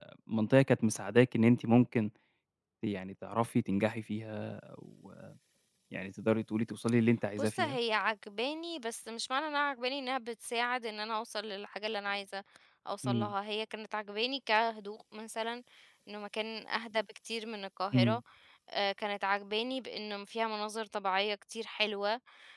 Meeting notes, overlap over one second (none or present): none